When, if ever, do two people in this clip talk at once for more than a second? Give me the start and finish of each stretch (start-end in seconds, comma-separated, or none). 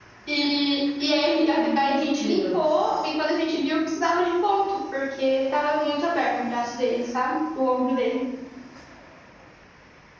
1.6-2.9